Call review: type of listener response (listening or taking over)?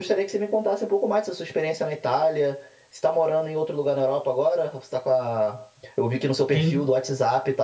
listening